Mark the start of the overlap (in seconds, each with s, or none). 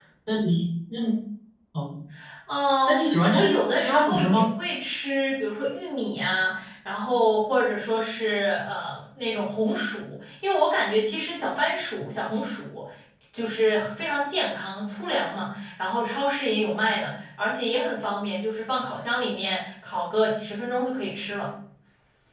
2.9 s